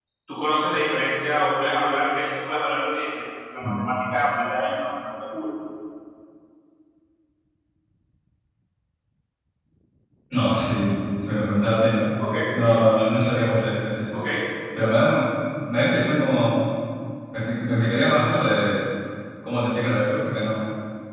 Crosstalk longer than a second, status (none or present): none